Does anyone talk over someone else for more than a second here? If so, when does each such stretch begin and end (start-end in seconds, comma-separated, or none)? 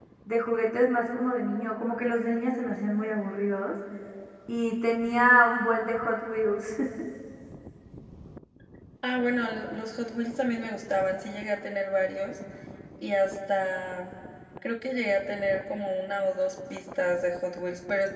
none